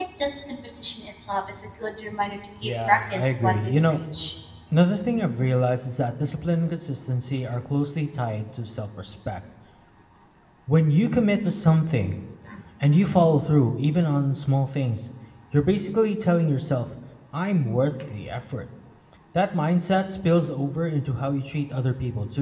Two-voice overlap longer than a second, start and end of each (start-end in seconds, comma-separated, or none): 2.6-4.0